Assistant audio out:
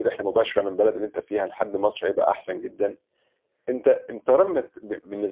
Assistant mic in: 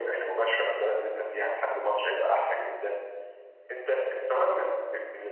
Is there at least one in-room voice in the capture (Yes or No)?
No